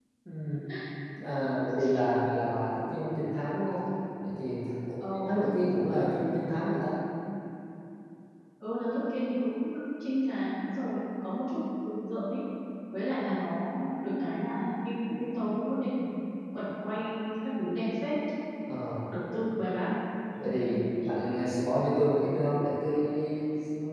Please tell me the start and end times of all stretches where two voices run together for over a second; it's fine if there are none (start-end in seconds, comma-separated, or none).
none